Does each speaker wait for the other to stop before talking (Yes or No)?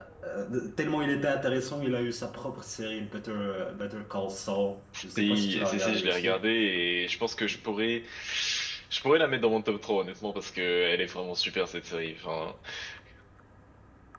No